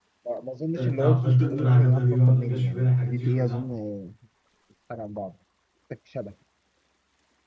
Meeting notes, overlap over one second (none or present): present